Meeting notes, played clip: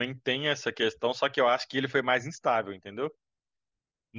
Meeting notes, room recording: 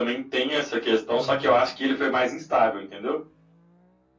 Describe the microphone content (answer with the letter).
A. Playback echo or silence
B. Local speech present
B